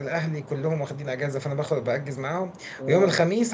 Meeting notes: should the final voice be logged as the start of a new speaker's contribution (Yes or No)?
No